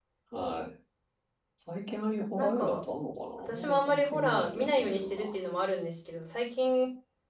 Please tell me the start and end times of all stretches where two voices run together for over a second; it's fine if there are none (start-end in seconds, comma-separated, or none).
3.4-5.3